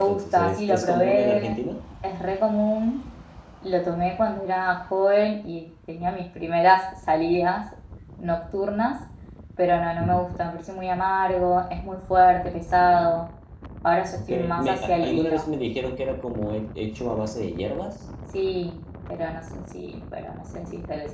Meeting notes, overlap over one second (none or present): present